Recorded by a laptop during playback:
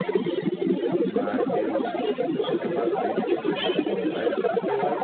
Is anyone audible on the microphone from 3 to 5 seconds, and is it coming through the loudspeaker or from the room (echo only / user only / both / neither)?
both